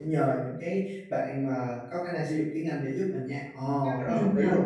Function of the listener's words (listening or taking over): taking over